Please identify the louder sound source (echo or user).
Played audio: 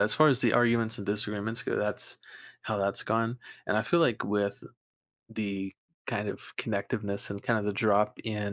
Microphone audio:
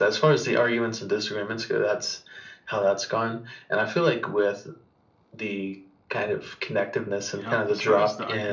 echo